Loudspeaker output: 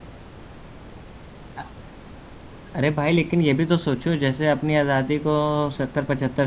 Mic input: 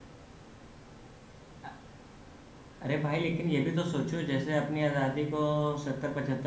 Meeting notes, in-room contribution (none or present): none